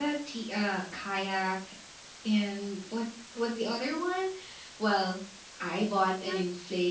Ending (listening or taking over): listening